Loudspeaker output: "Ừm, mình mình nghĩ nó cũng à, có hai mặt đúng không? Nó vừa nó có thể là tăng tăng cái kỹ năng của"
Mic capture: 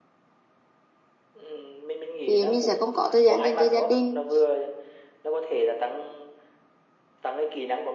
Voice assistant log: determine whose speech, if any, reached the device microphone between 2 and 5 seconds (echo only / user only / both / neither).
both